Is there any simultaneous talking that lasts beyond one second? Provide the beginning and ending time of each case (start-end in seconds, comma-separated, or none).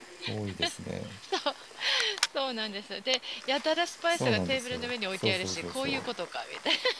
4.1-6.0